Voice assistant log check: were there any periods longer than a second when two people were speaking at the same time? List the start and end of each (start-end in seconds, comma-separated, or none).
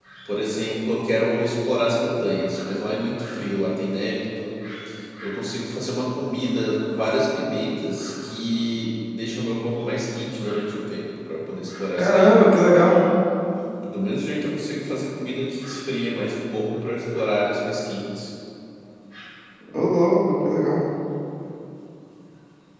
none